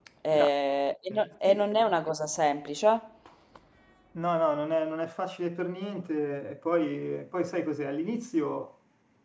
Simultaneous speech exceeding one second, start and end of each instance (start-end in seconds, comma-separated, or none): none